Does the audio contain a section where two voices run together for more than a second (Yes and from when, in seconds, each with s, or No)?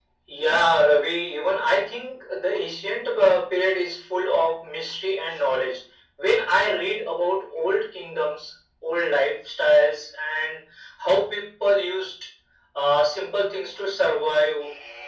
No